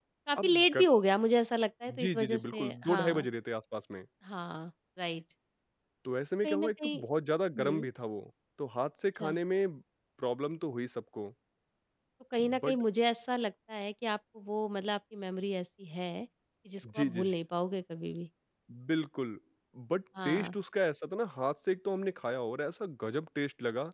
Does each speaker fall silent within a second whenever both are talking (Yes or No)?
No